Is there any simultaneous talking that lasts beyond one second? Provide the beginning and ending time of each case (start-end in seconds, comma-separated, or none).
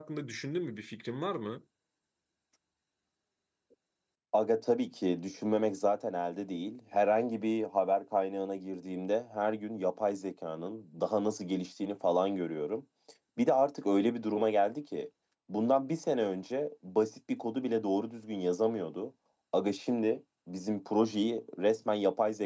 none